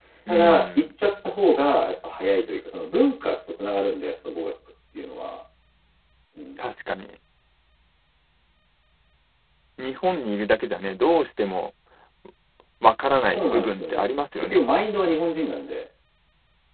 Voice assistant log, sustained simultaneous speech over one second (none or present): present